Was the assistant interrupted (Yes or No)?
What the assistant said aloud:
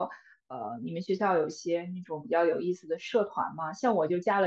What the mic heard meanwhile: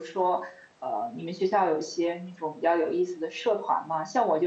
No